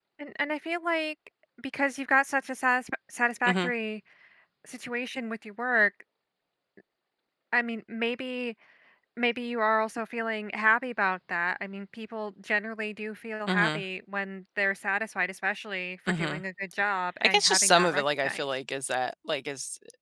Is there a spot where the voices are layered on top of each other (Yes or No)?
Yes